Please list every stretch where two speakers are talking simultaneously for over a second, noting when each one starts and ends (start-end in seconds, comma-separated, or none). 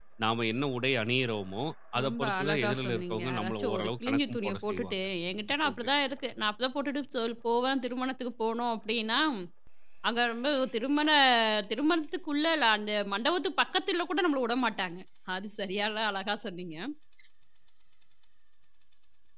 2.0-5.0